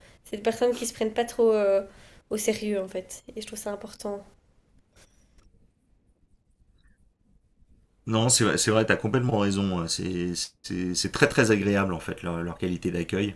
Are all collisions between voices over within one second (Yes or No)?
Yes